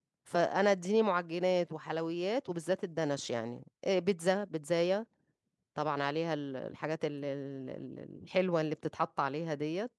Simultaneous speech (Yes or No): No